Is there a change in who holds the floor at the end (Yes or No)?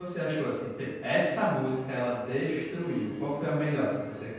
Yes